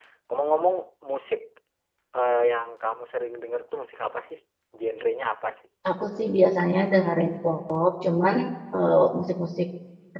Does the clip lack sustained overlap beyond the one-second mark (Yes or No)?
Yes